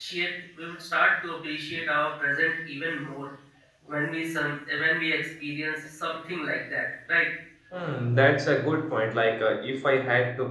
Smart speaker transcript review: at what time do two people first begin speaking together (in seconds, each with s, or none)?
none